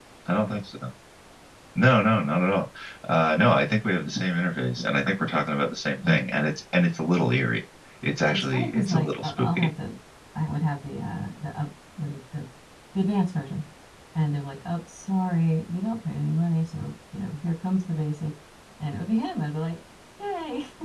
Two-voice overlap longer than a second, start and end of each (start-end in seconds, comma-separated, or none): 8.2-9.7